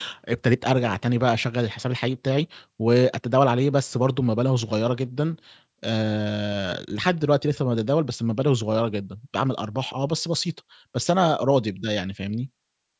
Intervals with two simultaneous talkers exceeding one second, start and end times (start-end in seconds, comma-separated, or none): none